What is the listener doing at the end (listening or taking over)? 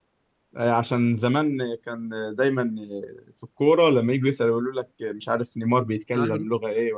listening